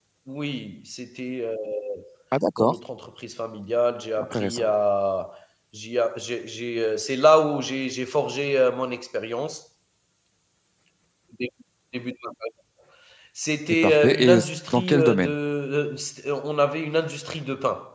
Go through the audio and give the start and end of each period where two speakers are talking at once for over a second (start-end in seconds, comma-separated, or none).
13.8-15.3